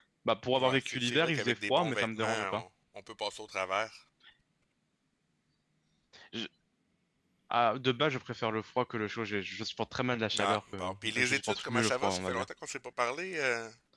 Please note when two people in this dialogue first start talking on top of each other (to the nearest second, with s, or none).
1 s